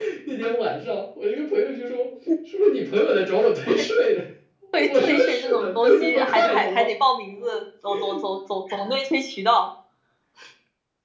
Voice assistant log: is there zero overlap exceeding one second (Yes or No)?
No